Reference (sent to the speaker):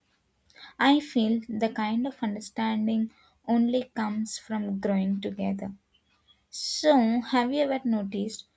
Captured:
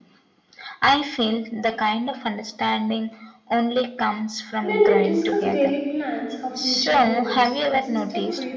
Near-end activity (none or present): present